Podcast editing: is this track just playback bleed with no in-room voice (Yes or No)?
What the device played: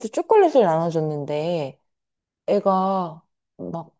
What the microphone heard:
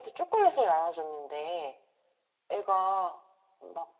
Yes